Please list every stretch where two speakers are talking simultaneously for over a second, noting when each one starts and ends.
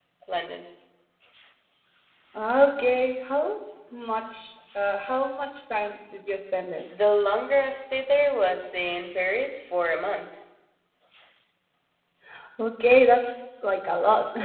none

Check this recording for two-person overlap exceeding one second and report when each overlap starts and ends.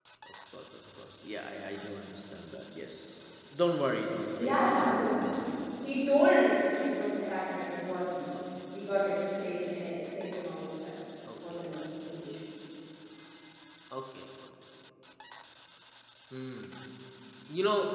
4.3-5.6

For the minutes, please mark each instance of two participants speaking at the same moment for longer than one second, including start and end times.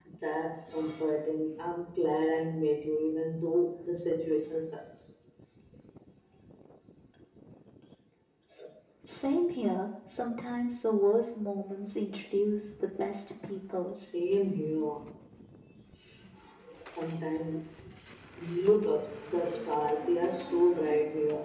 none

